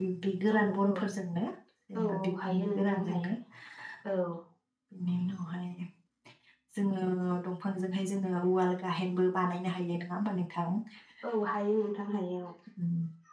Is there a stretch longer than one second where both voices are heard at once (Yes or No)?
Yes